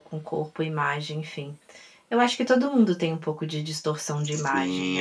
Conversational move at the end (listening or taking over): taking over